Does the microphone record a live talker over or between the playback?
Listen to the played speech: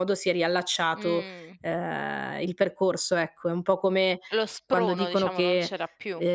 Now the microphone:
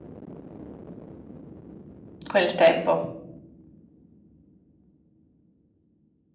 Yes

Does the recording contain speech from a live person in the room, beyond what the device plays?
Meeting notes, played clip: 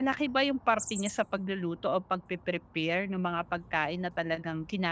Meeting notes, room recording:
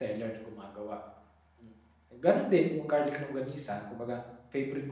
Yes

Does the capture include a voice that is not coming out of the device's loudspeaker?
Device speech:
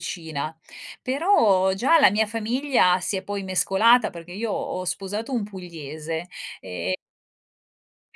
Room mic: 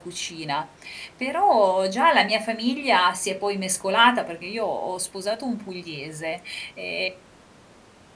No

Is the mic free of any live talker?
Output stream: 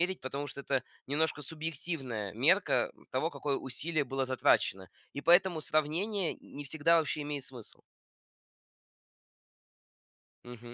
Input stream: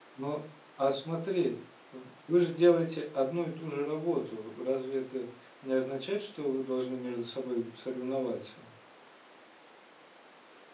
No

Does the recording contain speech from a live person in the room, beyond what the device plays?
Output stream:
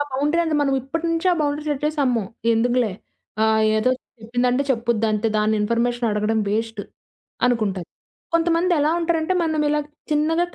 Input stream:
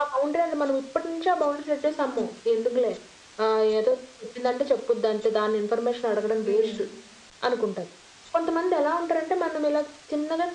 Yes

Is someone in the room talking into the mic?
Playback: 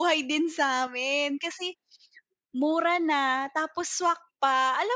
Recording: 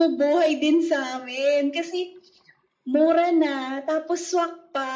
No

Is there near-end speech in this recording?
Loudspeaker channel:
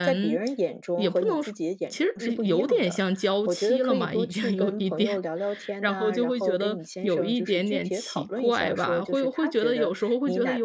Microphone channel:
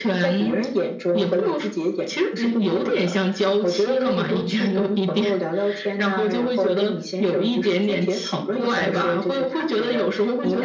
No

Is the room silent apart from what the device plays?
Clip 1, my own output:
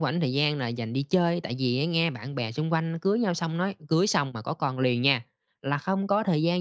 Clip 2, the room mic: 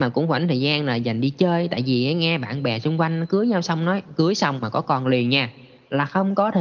Yes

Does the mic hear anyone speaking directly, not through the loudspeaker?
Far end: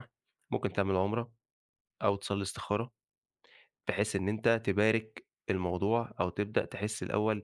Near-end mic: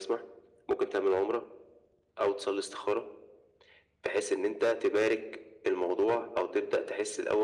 No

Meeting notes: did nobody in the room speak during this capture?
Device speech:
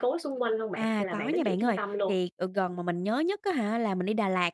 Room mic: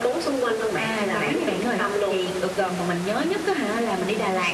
Yes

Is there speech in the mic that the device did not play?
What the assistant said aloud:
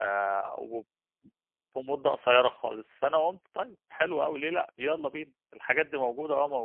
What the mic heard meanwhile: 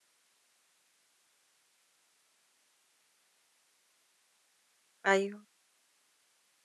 Yes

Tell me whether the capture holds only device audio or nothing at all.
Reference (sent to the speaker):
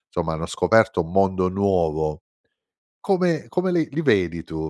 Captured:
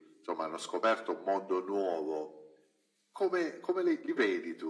Yes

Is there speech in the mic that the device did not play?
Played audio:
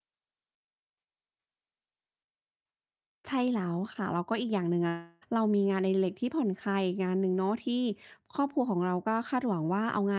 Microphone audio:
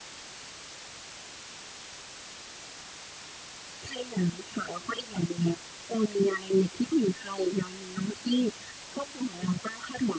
No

